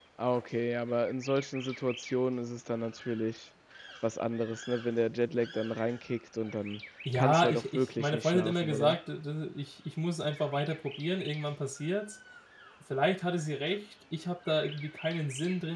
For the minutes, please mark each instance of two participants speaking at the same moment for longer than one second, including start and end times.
7.1-9.0

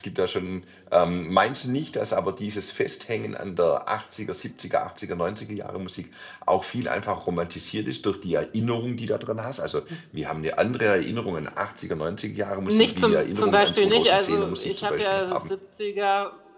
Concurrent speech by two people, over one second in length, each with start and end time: 12.7-15.4

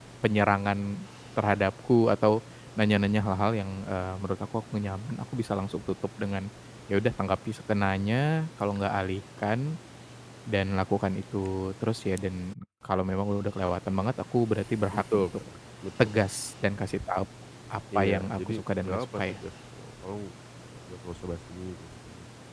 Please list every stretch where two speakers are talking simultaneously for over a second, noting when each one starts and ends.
18.0-19.4

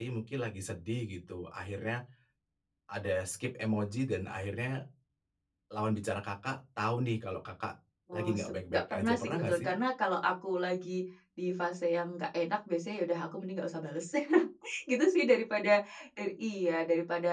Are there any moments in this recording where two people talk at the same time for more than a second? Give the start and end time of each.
8.1-9.7

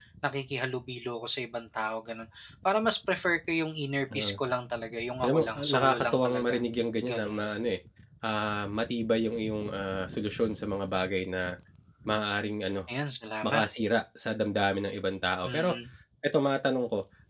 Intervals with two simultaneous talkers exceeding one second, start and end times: 5.2-6.6

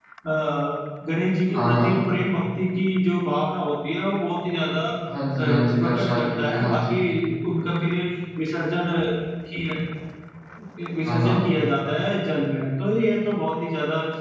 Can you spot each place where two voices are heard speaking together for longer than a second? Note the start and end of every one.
5.8-7.0

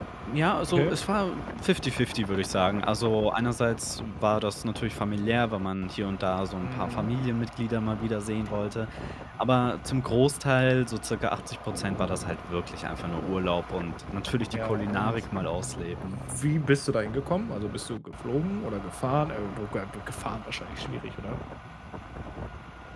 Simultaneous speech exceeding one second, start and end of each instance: 14.5-16.2

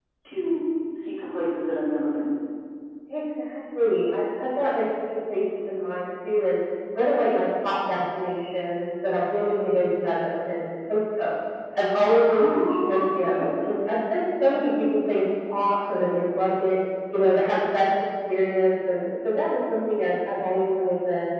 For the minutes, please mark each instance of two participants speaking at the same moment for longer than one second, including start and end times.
12.2-13.5

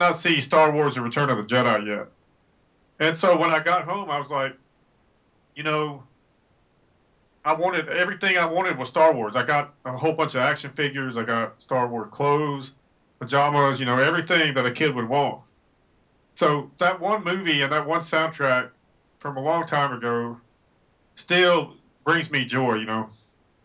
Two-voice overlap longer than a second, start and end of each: none

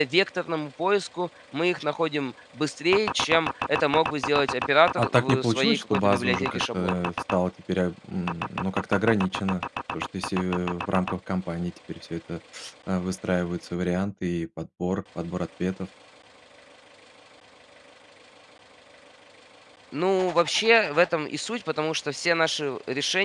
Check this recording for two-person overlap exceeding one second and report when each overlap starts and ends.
5.0-7.0

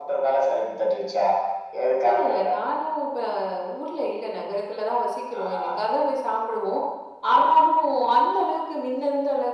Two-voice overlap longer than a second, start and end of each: none

